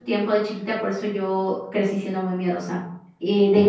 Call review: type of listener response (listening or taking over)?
listening